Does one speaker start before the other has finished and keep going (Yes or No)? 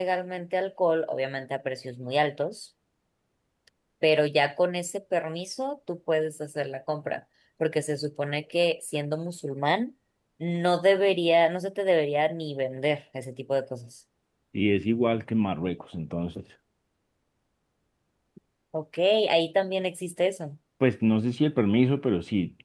No